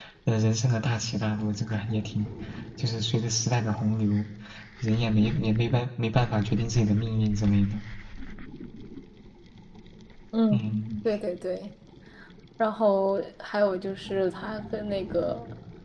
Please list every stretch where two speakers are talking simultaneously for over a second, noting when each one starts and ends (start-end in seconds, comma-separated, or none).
none